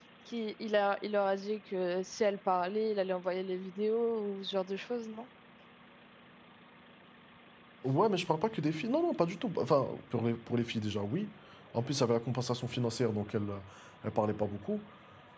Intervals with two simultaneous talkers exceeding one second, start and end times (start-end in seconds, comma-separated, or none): none